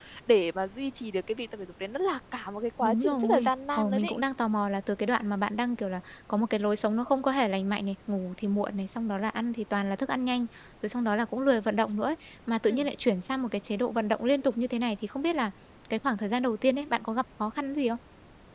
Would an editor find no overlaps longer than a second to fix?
No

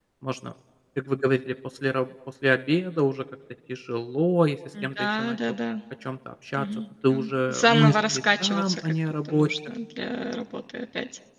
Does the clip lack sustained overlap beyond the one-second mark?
No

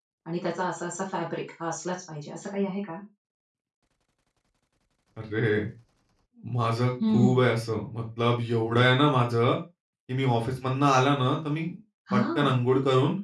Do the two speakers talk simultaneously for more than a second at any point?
No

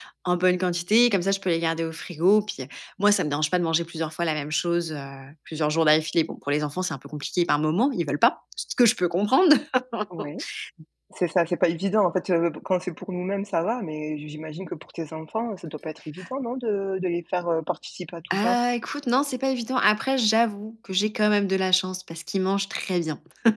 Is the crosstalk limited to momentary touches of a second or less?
Yes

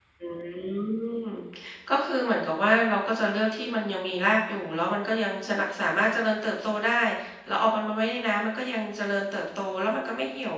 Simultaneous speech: No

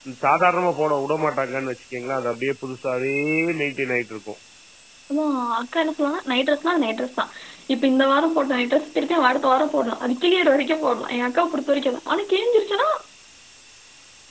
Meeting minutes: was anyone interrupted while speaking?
No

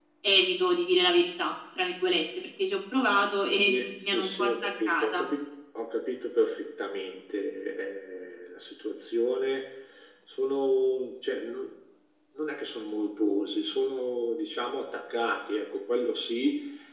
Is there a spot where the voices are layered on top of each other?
Yes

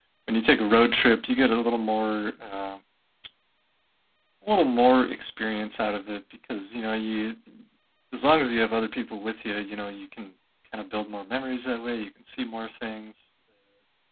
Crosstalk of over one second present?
No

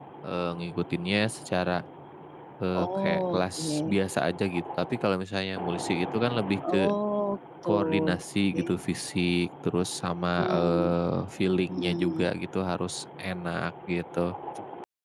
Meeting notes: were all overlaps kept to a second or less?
No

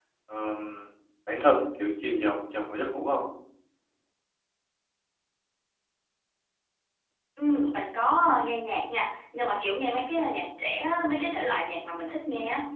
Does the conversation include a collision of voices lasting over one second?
No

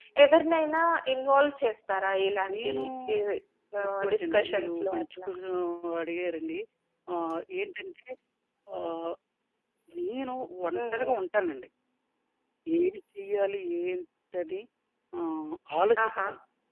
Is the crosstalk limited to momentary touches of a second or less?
No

